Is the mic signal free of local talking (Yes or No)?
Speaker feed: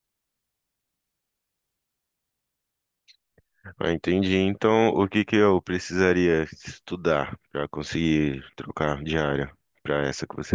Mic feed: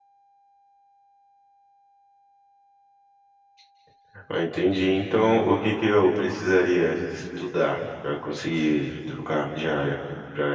Yes